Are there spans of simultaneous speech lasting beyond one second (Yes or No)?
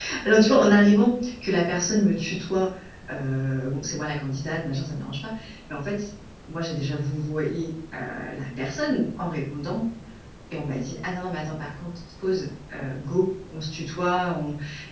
No